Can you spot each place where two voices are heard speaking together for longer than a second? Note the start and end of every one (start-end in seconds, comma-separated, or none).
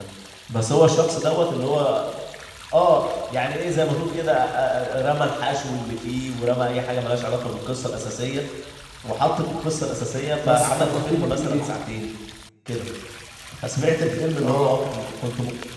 10.4-11.7